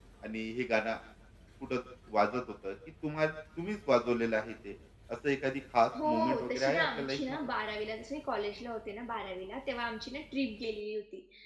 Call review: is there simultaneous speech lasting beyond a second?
Yes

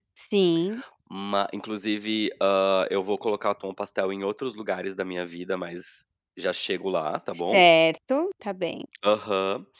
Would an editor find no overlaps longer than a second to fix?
Yes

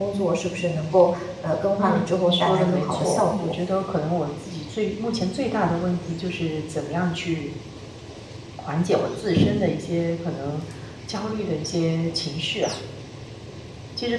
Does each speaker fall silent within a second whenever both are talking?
No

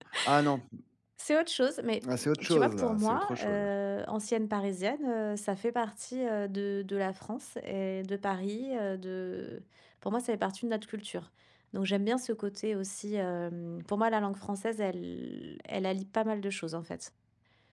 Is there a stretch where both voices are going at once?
Yes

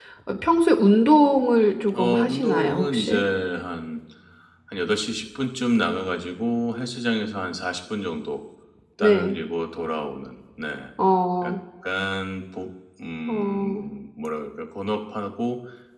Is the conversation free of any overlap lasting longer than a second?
No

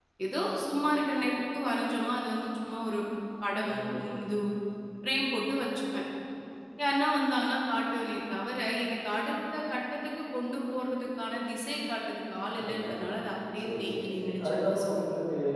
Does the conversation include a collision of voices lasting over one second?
Yes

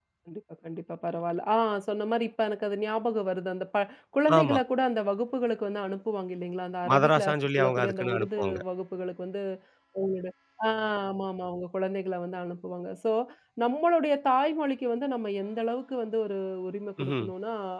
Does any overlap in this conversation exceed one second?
Yes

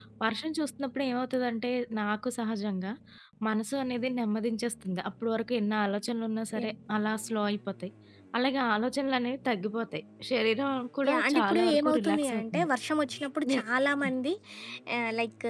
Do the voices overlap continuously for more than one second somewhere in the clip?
Yes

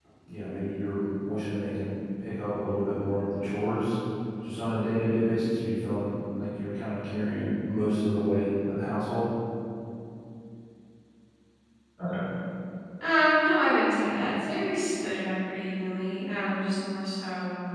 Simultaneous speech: No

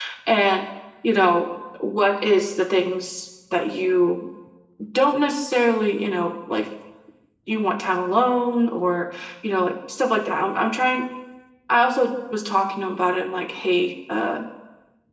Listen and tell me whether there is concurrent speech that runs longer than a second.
No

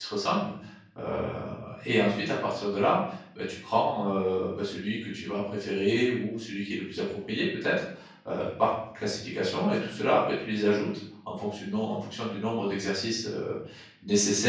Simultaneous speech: No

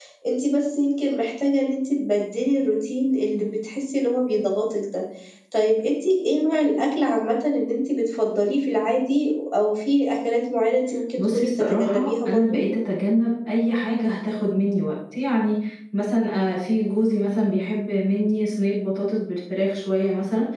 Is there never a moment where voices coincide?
No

